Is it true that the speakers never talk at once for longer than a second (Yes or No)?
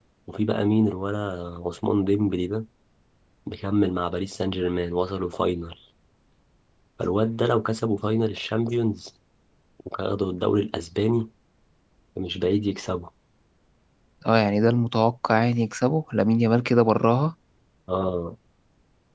Yes